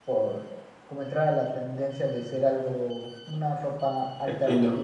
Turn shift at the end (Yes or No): Yes